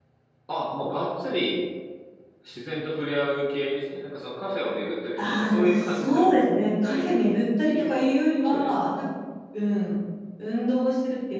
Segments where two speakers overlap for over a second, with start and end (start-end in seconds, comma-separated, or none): 5.2-6.4